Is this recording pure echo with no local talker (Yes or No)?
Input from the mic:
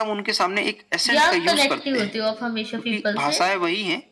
No